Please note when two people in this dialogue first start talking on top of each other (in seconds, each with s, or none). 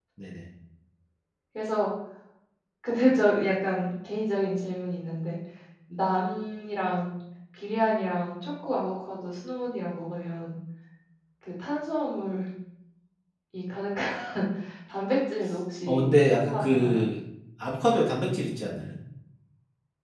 15.8 s